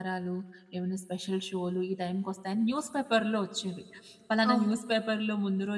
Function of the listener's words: listening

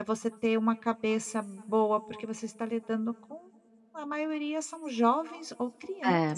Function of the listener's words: listening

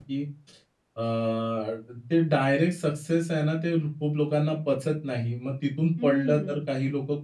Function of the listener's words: listening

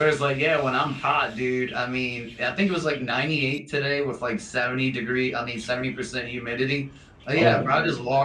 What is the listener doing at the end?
listening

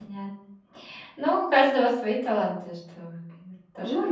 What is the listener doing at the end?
taking over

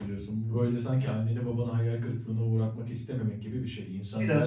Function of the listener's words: listening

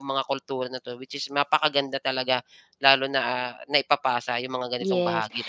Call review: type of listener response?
taking over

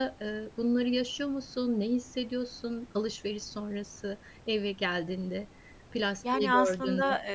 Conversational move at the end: taking over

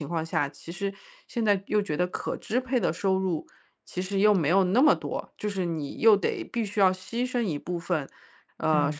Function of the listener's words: listening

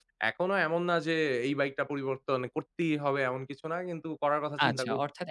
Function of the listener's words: taking over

